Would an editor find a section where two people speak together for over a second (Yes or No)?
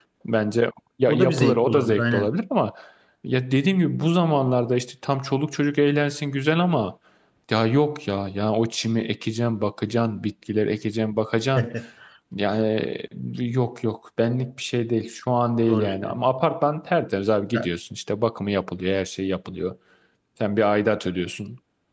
Yes